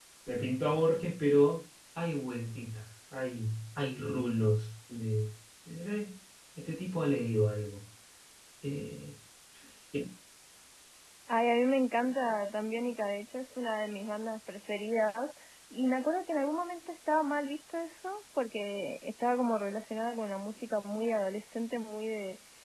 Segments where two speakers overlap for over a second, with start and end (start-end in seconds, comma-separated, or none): none